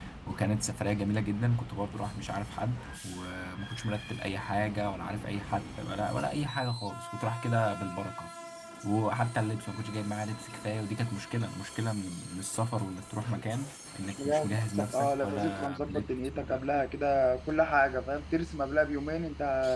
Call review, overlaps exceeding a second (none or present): present